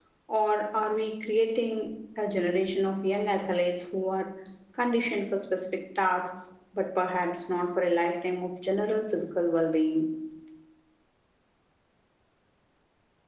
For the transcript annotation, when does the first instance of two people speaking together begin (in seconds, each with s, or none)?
none